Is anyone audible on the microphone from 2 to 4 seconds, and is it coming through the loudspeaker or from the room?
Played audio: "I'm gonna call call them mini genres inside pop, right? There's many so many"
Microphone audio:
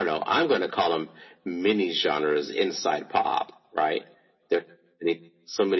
echo only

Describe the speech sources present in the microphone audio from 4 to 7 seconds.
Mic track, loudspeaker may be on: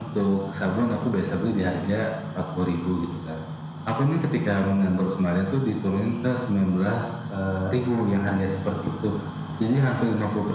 echo only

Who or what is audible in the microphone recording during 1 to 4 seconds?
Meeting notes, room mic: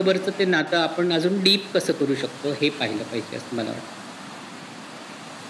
echo only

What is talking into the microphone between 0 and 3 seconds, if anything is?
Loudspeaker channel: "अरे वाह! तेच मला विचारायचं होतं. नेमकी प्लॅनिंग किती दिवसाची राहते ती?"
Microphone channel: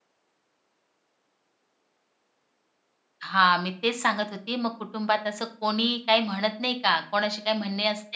neither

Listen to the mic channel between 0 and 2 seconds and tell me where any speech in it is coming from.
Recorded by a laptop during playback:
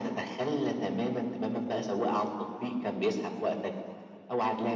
echo only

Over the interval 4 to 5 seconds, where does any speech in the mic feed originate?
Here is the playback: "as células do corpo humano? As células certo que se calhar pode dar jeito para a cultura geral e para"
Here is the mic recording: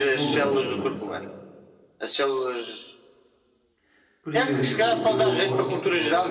both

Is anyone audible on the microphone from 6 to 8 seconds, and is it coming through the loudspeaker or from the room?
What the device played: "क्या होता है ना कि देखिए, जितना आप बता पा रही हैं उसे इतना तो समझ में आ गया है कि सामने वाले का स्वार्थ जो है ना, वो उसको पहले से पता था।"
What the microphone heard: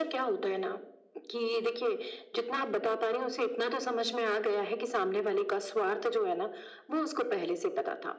echo only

